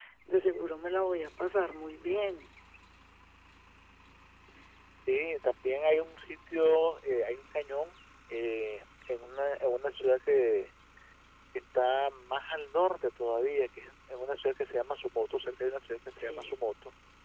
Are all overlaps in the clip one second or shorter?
Yes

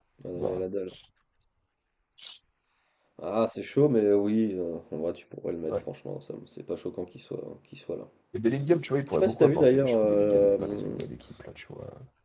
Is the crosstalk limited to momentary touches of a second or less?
No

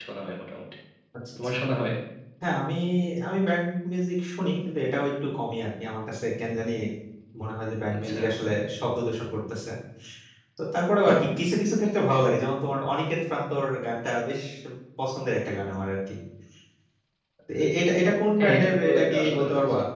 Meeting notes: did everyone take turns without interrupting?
No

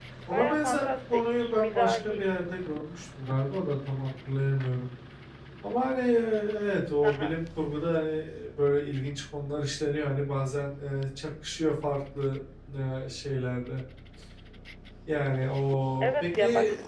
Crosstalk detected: Yes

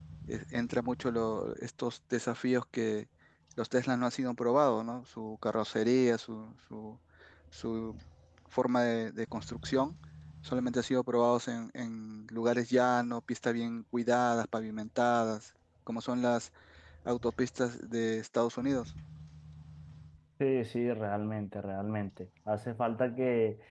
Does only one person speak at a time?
Yes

